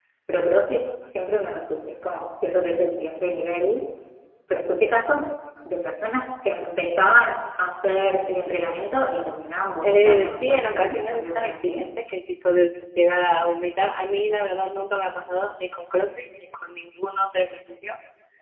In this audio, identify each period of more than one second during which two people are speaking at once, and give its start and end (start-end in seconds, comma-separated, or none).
9.8-11.9